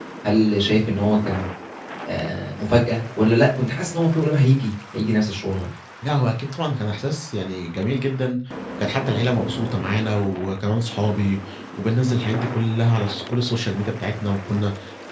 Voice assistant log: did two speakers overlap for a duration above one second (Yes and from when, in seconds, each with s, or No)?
No